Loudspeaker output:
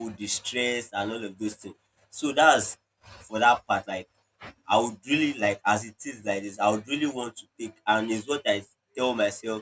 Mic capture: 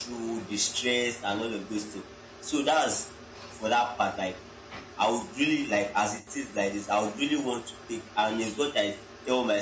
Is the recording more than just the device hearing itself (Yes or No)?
No